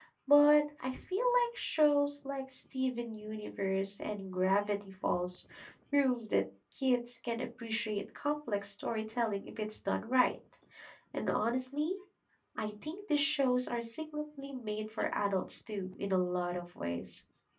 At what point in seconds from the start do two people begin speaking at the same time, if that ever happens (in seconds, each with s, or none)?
none